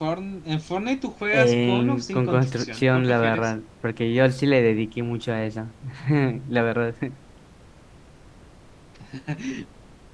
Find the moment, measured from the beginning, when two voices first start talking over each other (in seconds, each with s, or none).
1.3 s